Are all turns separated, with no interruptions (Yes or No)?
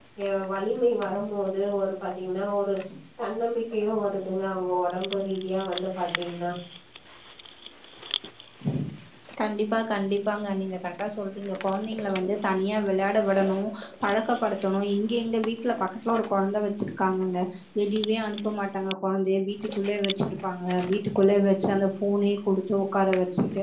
Yes